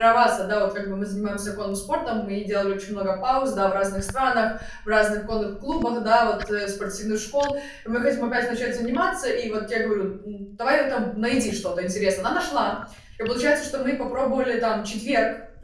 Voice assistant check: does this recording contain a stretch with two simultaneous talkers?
No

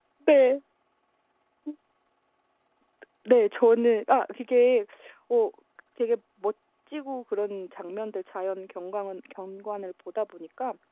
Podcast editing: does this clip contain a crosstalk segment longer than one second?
No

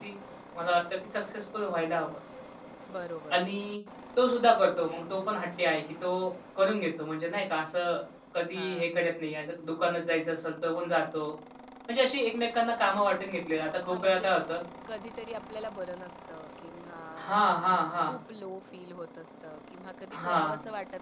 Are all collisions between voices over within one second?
Yes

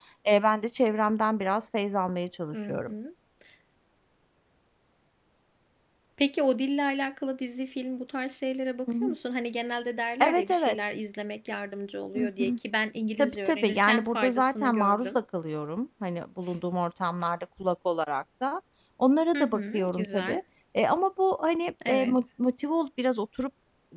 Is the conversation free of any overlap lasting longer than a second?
No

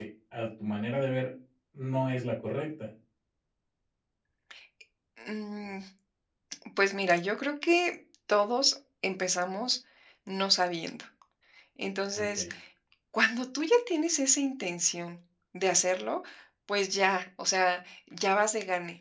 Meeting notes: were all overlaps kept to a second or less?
Yes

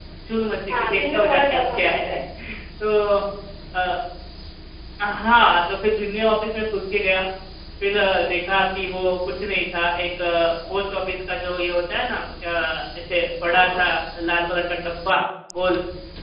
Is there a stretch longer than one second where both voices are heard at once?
Yes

